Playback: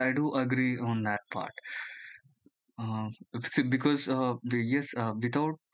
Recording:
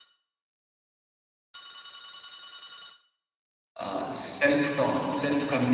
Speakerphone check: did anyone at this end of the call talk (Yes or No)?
Yes